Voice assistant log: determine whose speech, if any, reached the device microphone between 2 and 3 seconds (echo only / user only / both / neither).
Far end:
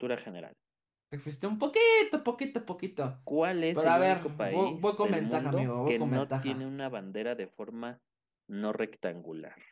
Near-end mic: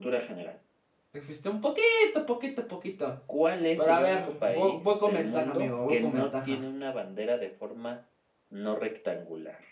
echo only